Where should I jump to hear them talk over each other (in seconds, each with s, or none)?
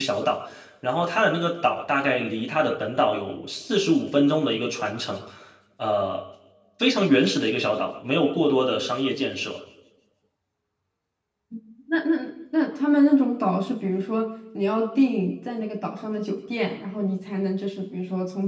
none